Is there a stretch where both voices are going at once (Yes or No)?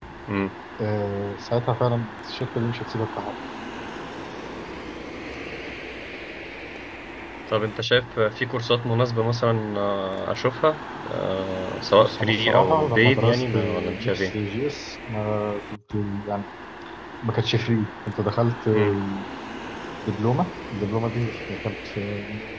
Yes